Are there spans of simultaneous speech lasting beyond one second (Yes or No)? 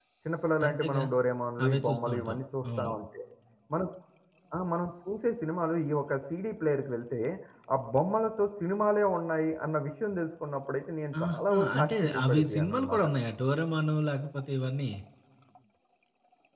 Yes